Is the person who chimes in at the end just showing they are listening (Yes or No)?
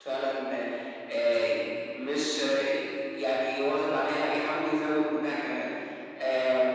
Yes